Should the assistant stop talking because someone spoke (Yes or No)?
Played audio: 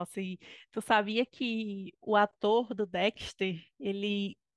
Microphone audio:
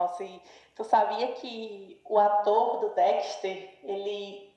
No